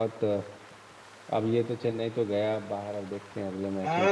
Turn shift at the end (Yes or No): Yes